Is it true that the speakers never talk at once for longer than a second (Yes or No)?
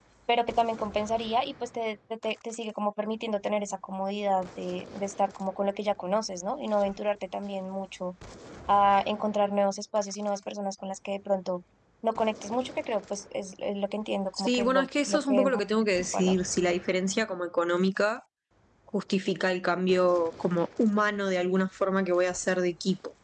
No